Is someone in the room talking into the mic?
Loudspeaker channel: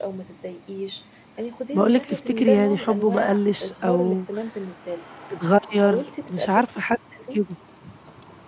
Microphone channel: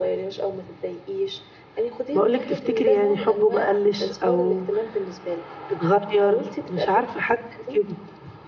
No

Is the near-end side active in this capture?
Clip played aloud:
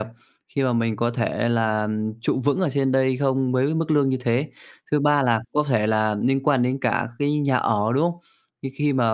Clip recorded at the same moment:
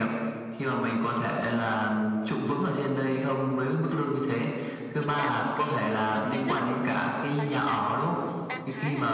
Yes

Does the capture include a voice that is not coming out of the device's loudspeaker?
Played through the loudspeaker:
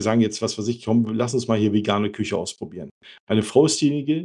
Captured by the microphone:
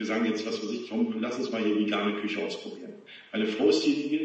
No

